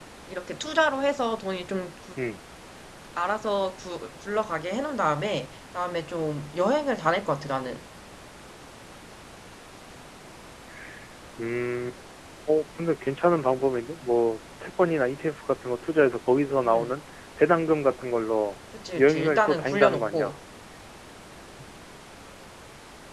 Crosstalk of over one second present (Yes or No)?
Yes